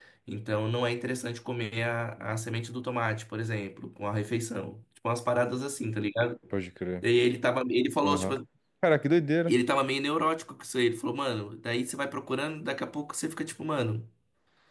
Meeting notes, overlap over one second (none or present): none